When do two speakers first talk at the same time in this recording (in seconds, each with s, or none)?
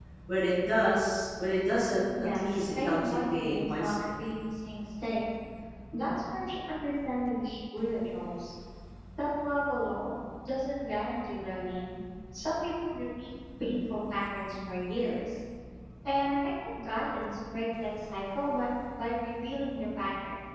2.1 s